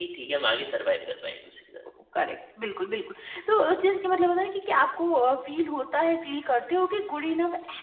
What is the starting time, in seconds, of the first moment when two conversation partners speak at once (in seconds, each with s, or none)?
none